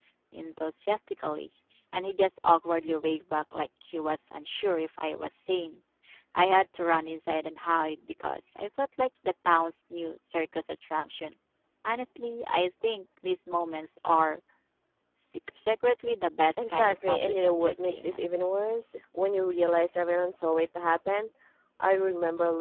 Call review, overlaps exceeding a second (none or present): present